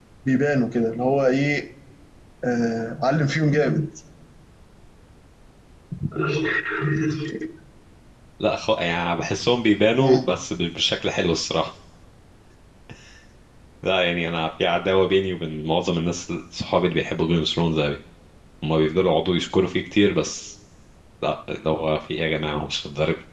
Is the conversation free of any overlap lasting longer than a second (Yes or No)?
Yes